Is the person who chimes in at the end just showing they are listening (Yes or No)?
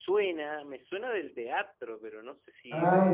No